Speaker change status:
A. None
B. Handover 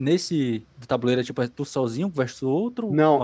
B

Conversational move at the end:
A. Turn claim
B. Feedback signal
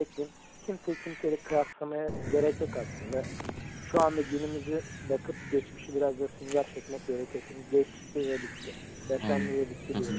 A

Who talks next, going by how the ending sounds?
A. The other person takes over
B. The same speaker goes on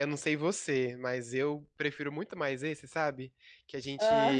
B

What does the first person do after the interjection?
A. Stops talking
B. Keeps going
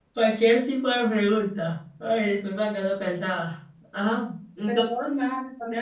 A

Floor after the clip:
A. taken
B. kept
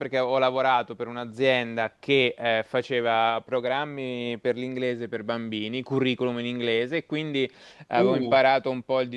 B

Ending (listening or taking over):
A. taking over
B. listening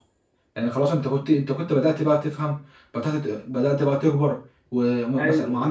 B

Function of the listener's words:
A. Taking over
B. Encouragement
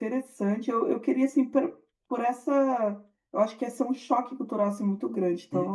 A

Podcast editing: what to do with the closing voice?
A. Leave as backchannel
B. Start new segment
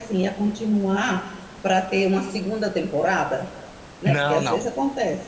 A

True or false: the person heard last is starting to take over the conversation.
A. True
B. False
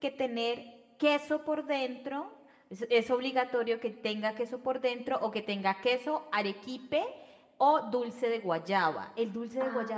A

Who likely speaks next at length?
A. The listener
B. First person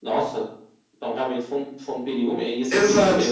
A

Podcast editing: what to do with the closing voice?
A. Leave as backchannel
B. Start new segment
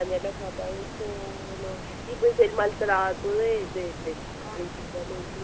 A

